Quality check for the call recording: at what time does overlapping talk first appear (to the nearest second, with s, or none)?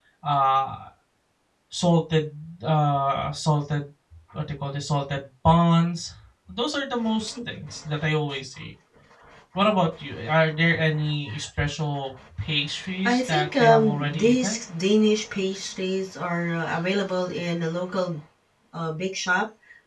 13 s